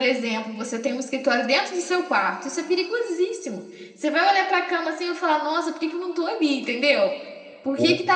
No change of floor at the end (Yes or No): Yes